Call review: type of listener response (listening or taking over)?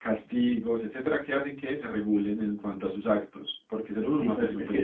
taking over